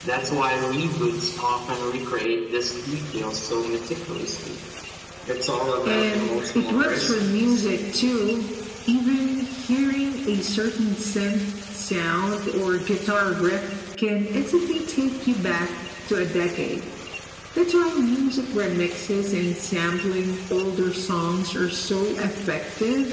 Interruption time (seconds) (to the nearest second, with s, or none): 6 s